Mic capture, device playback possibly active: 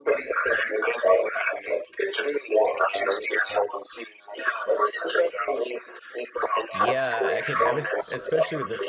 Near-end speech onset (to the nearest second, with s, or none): 7 s